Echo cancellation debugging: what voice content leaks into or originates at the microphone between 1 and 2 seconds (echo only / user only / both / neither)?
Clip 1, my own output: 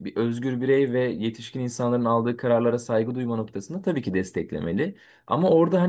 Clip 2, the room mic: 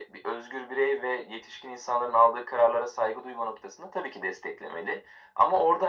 echo only